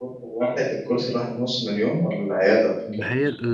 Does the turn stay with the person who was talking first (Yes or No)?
No